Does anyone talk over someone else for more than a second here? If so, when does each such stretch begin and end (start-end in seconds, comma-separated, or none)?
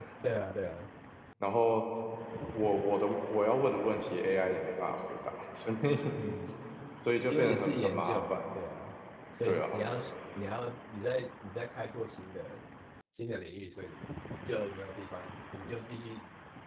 7.3-8.5